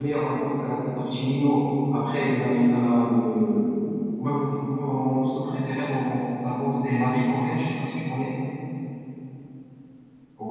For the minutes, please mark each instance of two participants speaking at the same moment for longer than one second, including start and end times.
none

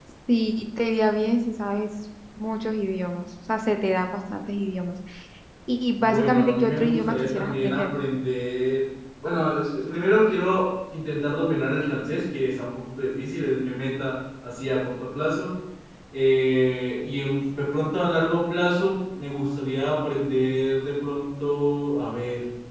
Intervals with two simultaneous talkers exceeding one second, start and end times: 6.0-7.9

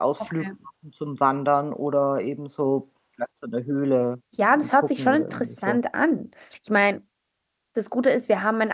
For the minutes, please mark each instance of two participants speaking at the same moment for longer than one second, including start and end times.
4.5-5.8

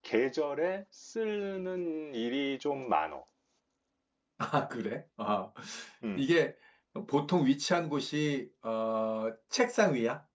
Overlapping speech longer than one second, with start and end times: none

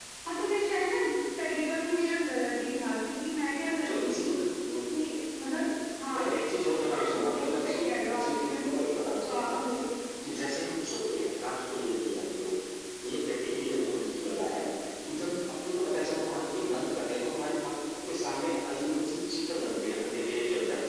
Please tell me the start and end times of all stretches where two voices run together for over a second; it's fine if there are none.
7.3-8.7

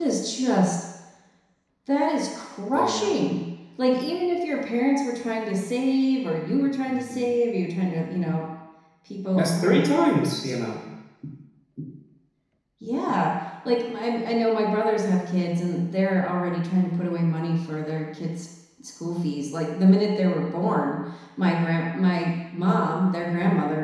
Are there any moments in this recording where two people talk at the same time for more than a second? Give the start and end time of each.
9.4-10.6

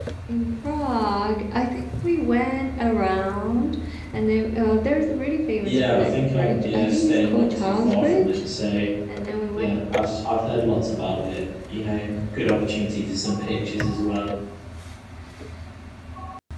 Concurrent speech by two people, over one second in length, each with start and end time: 5.6-8.4

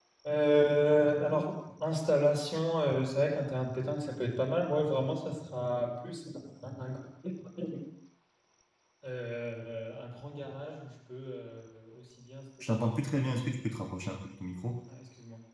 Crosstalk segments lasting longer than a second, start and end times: none

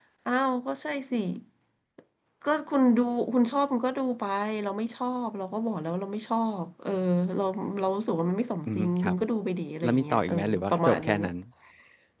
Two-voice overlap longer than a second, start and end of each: 9.8-11.3

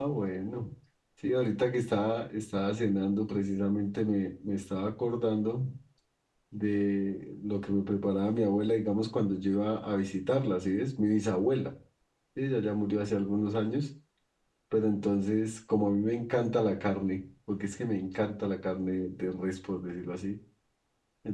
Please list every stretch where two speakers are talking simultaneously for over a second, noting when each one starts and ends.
none

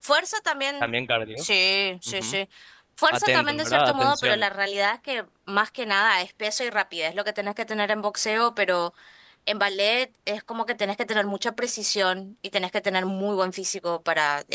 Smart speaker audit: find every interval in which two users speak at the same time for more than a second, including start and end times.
3.1-4.4

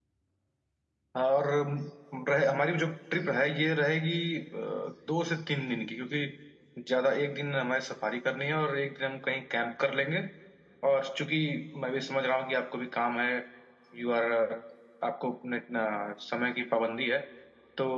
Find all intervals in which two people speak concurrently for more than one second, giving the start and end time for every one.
none

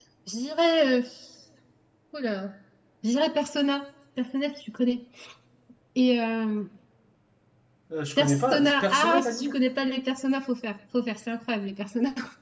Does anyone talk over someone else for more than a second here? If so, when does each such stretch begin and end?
8.2-9.5

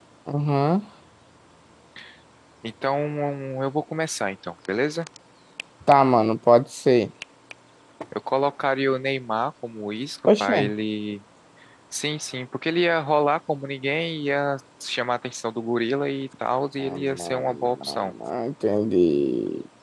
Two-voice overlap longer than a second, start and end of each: 16.8-18.1

